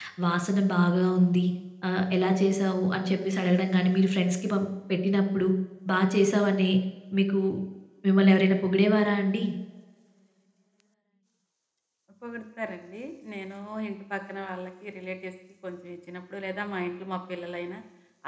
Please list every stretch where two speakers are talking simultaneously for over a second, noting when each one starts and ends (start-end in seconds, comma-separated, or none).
none